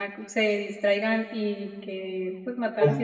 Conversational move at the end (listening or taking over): listening